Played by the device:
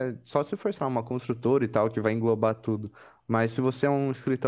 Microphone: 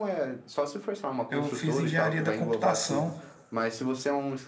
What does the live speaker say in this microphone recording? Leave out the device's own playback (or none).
Eu fiz engenharia da computação.